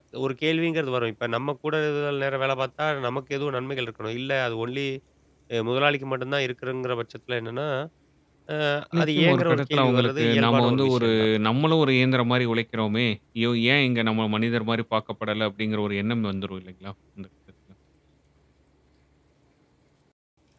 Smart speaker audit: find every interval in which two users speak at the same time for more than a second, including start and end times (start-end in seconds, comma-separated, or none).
9.0-11.1